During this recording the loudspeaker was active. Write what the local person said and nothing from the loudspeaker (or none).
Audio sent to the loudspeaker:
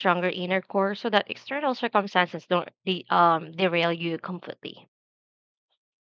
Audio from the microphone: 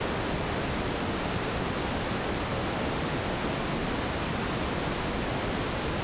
none